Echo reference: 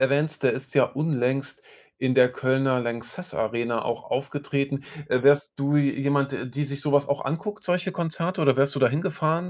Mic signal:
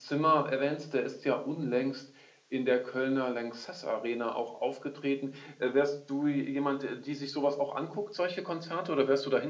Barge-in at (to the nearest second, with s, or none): none